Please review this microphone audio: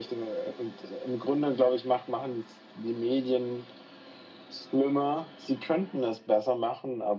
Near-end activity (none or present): none